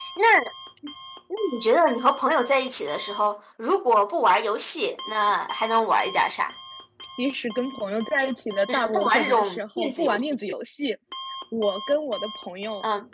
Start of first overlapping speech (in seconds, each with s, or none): 8.7 s